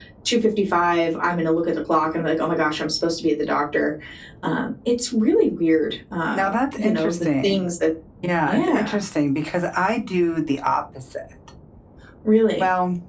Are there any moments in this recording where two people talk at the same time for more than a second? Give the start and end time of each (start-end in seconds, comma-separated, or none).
6.3-7.6